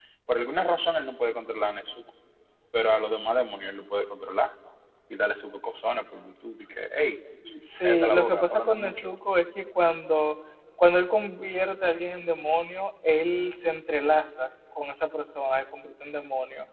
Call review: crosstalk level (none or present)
present